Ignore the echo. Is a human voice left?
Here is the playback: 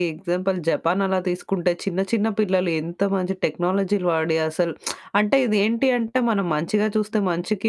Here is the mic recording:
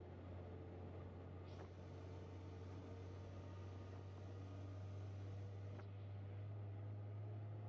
No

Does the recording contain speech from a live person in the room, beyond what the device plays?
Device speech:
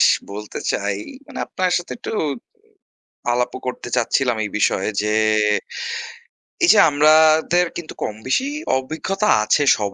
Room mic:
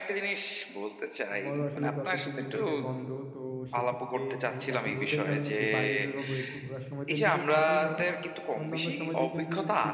Yes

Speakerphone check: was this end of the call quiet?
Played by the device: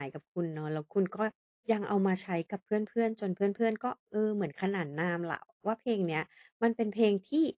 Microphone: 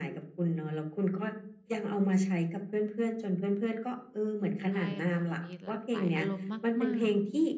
No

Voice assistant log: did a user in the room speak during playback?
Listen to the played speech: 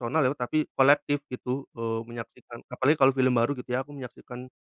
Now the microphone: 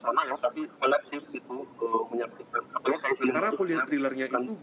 Yes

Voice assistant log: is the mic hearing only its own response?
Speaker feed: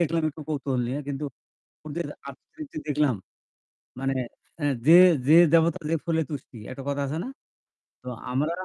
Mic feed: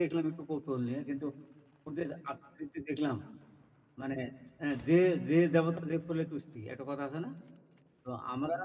Yes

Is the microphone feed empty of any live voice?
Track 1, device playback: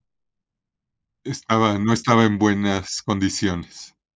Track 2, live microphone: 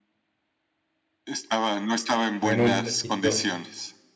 No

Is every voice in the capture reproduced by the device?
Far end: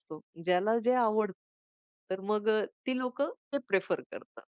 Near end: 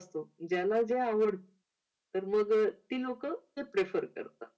Yes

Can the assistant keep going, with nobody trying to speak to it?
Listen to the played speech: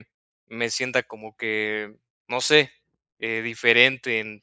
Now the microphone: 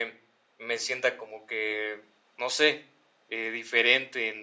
Yes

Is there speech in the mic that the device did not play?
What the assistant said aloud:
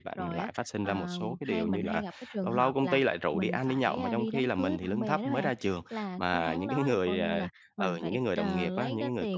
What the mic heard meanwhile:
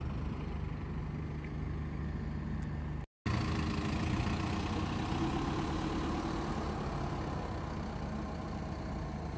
No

